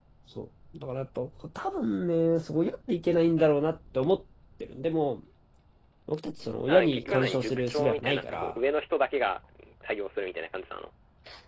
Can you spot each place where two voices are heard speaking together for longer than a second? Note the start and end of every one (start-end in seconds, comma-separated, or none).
6.7-8.5